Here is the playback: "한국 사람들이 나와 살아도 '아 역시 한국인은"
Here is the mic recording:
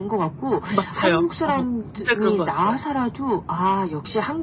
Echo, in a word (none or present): present